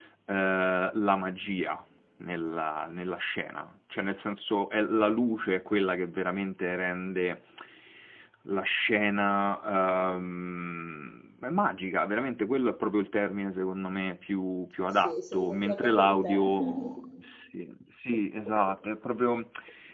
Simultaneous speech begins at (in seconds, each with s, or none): 14.9 s